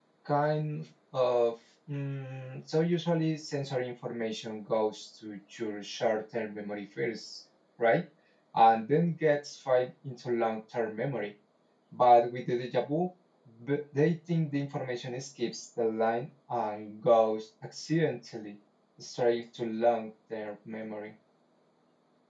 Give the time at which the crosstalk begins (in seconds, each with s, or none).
none